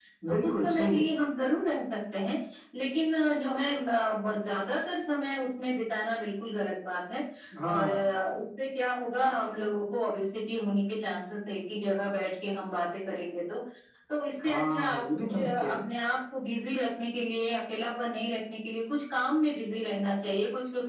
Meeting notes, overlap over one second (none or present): present